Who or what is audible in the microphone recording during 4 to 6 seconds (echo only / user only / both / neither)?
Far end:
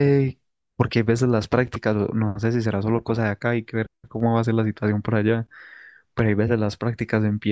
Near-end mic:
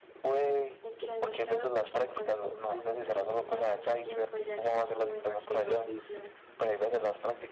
both